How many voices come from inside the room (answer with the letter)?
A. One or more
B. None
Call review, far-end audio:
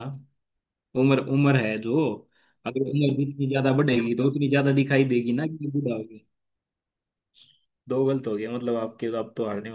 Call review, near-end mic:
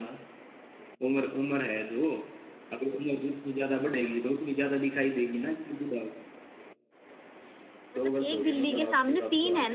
A